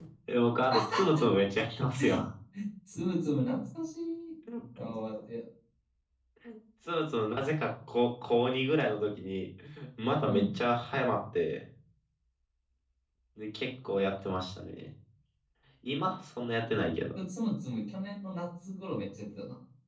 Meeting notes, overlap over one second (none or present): none